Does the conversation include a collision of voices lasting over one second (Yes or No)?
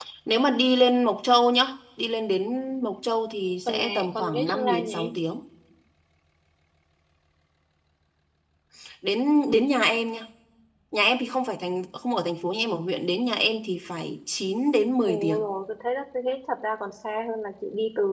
Yes